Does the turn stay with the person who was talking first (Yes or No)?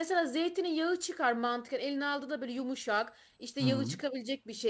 Yes